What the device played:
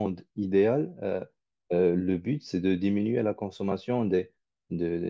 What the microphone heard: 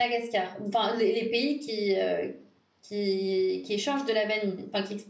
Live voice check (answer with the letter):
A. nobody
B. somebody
B